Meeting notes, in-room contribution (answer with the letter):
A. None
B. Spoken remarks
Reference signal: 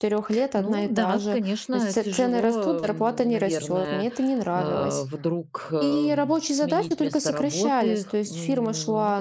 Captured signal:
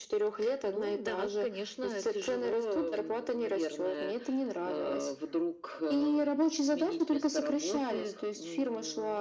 A